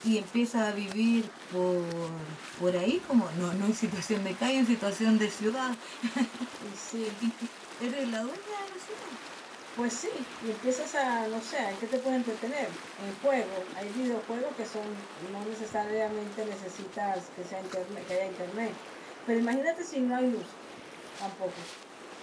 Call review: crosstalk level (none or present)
none